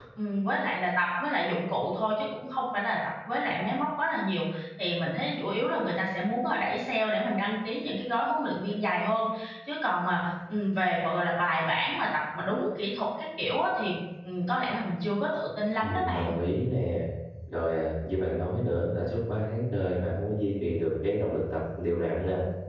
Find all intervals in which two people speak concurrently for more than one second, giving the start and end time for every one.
none

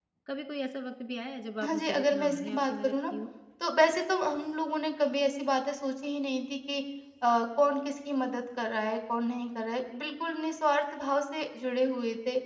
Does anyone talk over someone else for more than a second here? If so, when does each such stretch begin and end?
1.6-3.1

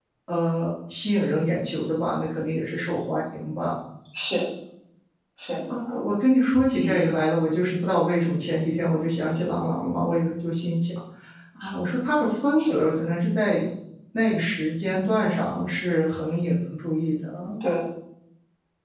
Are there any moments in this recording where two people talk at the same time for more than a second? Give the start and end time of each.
none

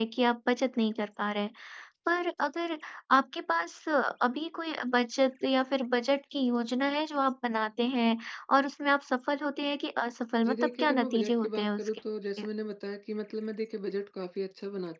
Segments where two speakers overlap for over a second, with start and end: 10.4-11.9

